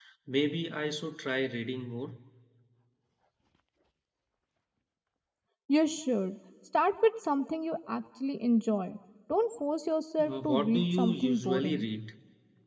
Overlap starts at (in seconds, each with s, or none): 10.2 s